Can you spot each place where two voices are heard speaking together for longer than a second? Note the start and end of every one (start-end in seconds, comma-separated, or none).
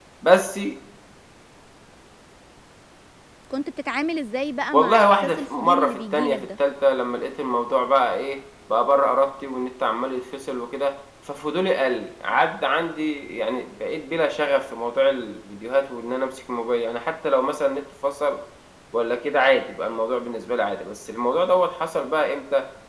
4.7-6.5